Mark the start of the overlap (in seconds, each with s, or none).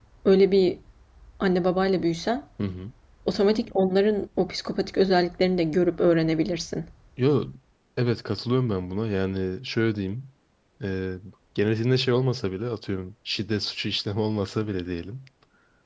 none